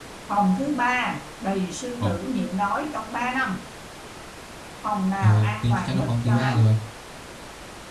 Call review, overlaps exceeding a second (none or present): present